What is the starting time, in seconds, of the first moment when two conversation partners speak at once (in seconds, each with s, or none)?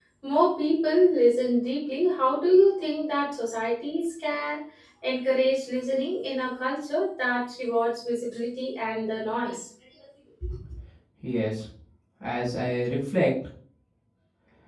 none